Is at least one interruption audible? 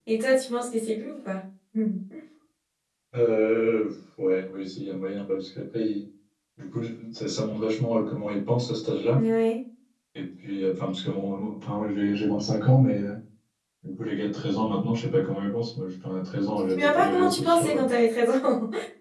Yes, from 16.6 s

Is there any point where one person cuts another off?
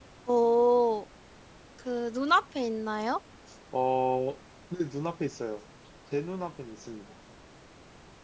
No

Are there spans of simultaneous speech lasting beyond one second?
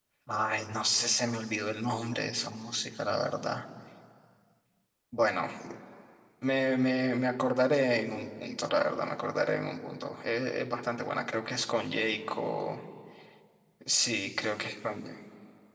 No

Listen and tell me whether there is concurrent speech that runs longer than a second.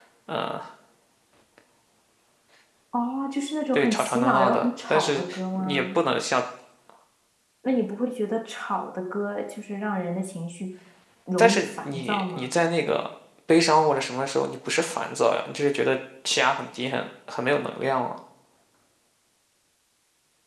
Yes, from 3.8 s

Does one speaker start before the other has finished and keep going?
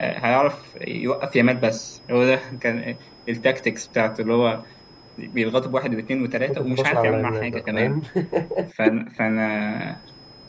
Yes, from 6.5 s

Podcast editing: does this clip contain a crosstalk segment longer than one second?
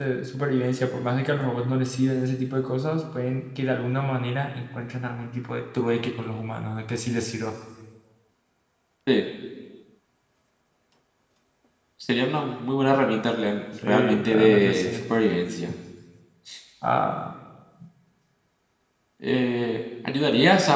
Yes, from 13.8 s

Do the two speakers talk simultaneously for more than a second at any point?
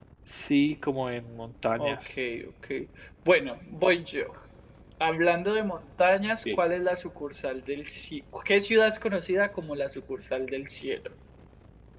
No

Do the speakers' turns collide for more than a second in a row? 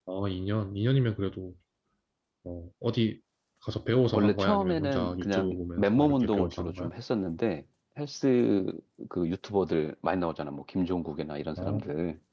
Yes, from 4.1 s

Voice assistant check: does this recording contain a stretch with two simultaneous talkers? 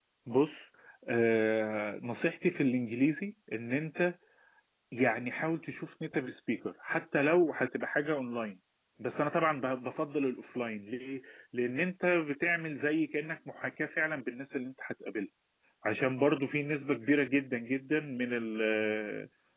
No

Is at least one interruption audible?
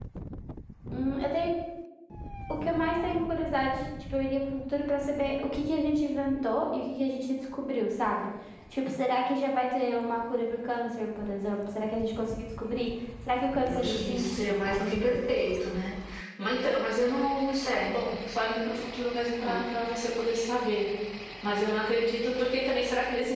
Yes, from 13.5 s

